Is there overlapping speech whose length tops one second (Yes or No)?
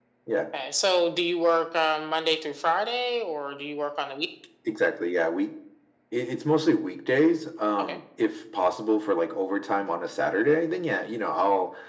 No